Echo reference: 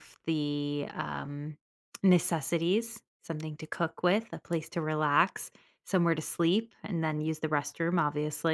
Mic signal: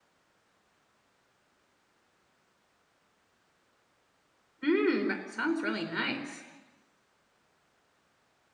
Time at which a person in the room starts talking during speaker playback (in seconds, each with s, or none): 4.6 s